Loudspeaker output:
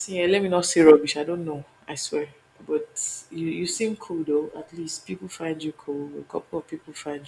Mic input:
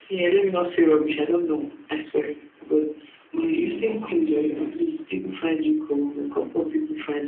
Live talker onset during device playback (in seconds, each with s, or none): 3.3 s